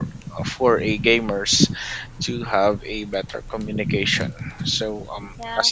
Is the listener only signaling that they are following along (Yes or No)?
Yes